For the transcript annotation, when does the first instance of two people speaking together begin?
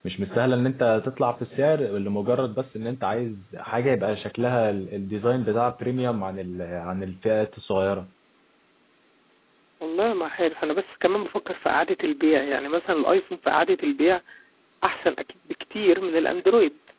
none

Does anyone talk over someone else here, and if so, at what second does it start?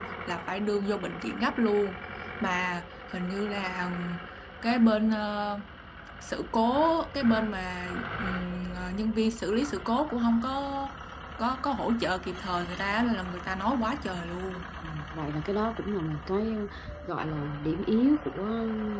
none

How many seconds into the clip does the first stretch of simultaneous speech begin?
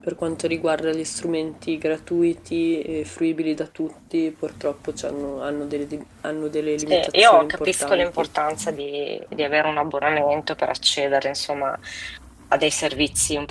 6.9 s

